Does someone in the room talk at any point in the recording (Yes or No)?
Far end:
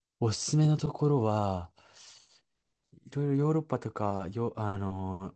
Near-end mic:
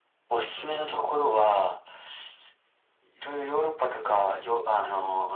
No